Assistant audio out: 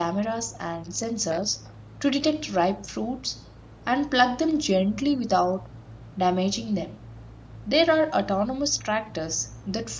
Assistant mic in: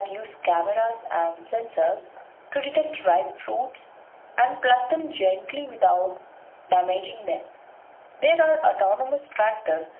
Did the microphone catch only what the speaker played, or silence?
Yes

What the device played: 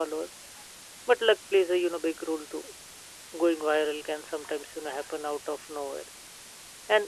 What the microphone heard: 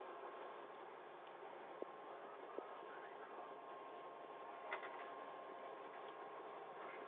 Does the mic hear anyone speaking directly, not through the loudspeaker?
No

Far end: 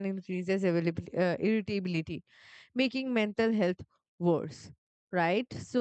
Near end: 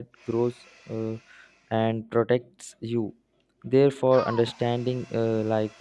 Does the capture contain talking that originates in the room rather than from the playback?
Yes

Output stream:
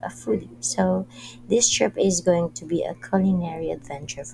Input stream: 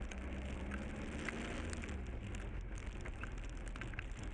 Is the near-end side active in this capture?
No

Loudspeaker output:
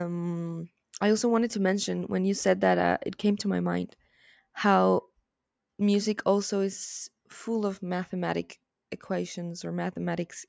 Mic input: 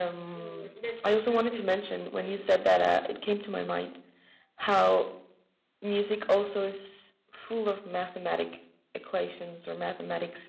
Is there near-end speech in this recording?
Yes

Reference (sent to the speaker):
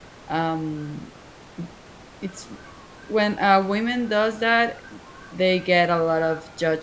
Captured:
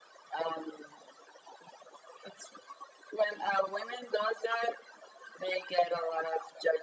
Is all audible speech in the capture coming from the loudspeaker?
Yes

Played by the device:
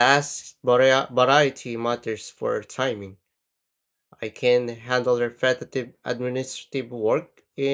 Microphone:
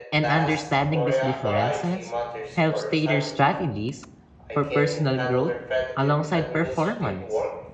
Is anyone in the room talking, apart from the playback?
Yes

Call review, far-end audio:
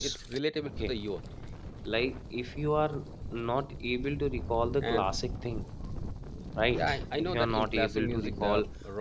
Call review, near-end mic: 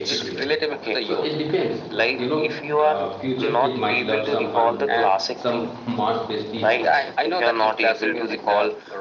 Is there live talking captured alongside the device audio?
Yes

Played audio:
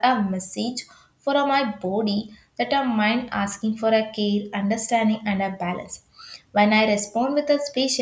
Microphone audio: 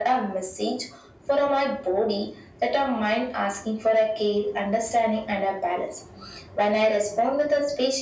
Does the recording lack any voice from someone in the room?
Yes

